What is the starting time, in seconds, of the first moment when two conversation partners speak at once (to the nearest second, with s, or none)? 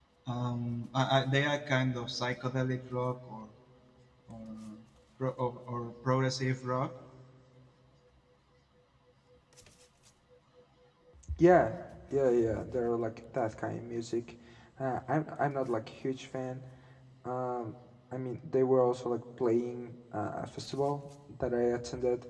none